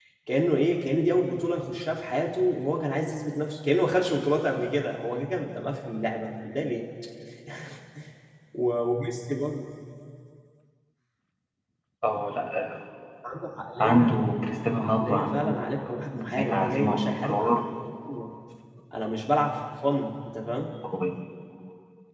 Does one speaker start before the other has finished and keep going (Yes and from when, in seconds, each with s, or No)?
Yes, from 13.8 s